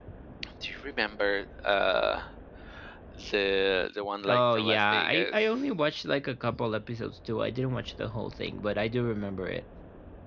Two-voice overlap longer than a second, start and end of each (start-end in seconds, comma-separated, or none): 4.3-5.5